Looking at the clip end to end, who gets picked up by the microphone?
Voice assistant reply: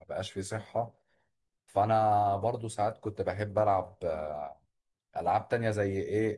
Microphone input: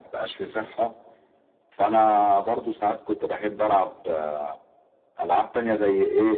echo only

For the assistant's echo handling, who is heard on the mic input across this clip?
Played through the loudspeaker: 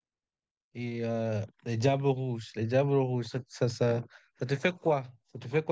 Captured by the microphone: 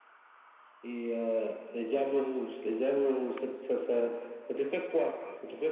echo only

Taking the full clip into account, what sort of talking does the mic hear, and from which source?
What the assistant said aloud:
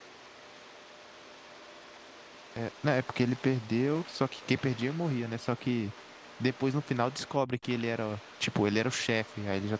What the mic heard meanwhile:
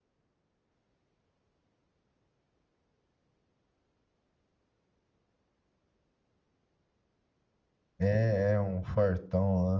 user only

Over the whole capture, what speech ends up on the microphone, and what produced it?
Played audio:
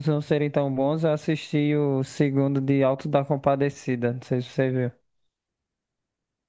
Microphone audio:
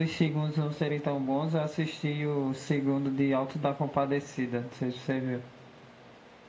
echo only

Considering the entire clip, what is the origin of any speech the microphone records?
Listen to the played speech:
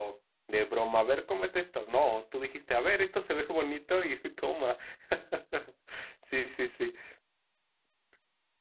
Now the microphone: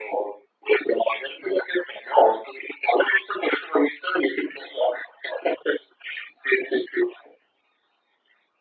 echo only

